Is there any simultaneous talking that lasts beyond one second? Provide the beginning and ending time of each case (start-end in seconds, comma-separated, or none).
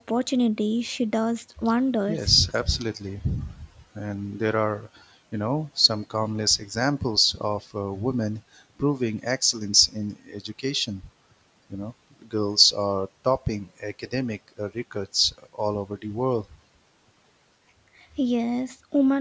none